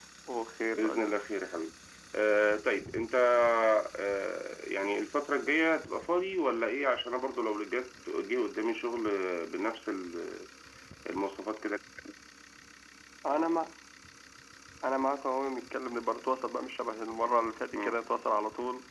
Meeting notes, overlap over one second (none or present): none